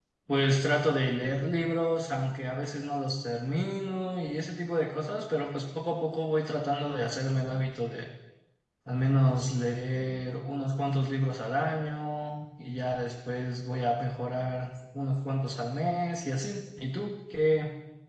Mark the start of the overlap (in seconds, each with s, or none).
none